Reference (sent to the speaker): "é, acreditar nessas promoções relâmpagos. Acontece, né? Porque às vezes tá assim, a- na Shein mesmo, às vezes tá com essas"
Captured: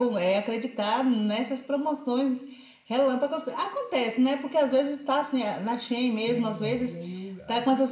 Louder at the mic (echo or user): echo